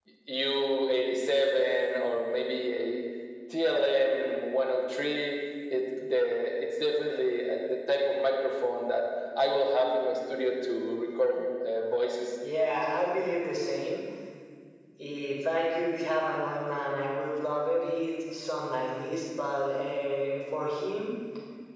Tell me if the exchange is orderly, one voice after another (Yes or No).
Yes